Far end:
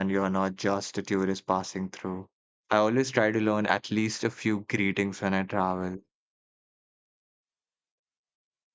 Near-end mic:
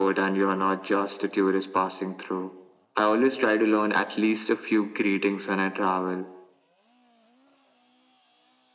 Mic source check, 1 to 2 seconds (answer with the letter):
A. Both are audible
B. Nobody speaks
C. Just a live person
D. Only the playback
D